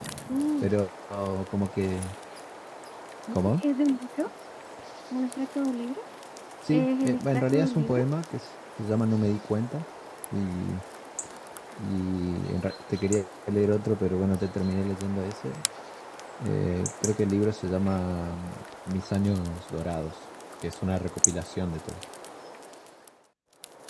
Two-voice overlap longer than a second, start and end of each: 6.7-8.0

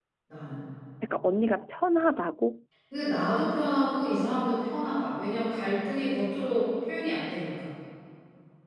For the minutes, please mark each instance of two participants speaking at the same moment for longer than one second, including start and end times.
none

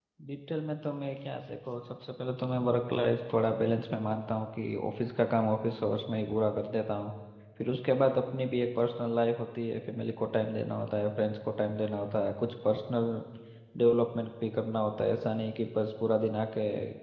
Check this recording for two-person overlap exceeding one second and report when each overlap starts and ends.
none

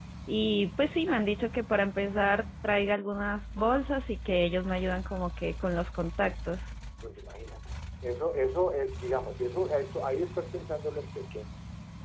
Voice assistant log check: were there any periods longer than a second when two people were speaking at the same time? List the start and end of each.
none

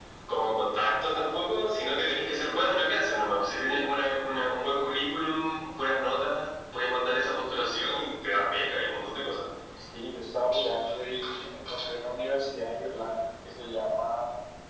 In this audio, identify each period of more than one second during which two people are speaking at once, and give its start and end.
none

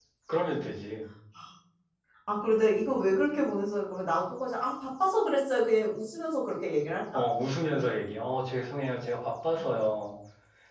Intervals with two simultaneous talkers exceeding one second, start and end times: none

